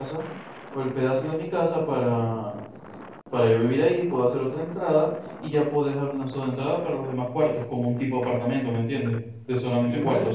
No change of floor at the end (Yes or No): No